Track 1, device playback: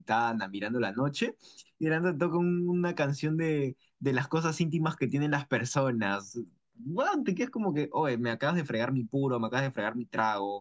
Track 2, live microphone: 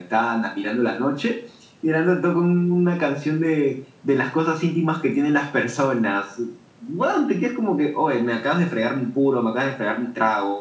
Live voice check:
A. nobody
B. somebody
A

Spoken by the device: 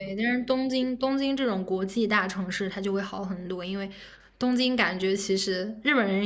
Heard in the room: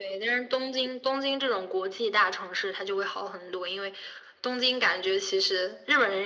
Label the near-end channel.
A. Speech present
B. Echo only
B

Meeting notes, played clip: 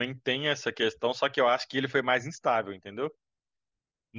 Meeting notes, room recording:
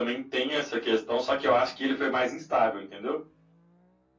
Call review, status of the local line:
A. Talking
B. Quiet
B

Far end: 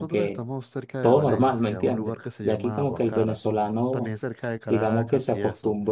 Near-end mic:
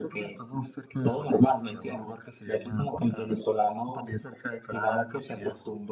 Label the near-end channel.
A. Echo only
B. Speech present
A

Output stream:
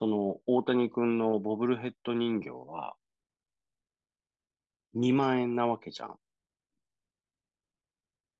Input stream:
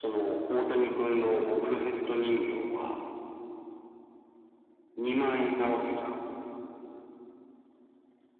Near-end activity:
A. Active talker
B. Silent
B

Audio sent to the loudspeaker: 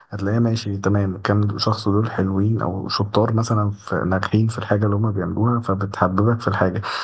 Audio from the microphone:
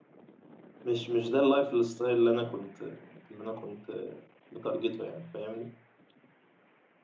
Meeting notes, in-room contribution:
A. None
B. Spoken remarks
B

